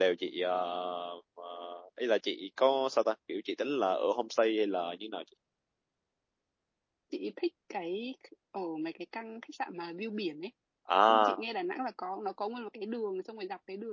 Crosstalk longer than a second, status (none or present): none